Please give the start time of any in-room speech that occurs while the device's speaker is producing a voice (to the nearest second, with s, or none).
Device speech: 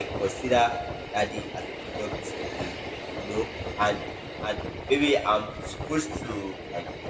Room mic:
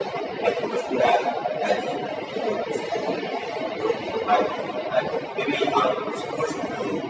none